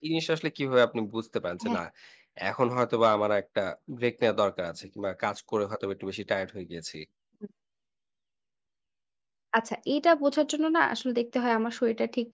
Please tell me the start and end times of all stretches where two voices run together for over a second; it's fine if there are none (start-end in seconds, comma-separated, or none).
none